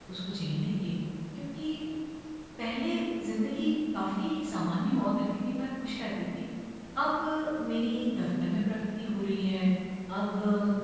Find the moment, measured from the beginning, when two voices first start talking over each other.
none

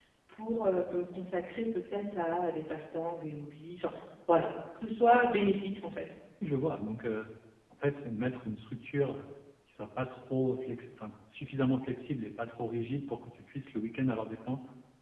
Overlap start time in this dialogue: none

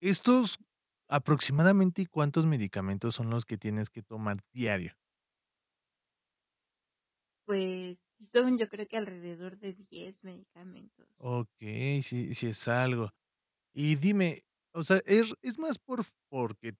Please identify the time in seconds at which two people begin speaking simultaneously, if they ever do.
none

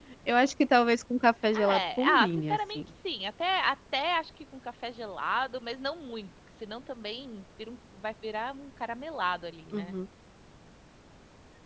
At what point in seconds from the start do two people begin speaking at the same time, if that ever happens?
1.5 s

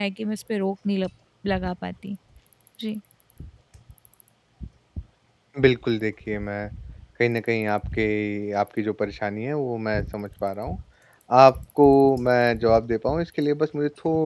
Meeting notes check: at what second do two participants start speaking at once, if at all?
none

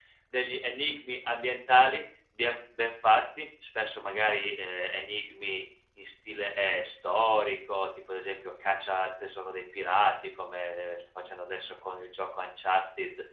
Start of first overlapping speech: none

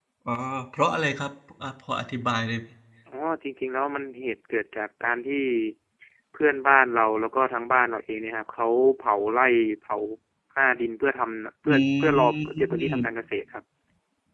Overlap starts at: 11.7 s

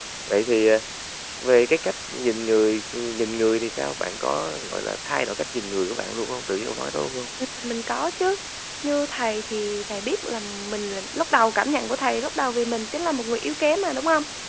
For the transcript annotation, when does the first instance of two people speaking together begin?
none

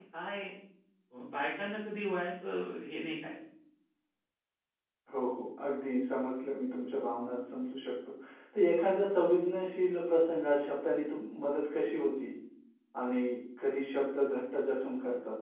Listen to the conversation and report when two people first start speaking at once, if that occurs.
none

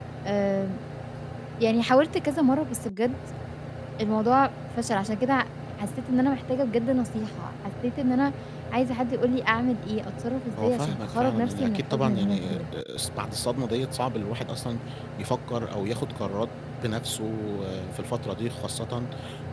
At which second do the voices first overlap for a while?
10.6 s

